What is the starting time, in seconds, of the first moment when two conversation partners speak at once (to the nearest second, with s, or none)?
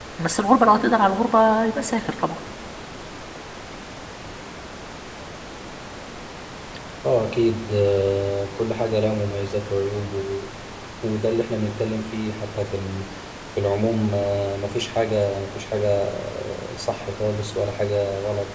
none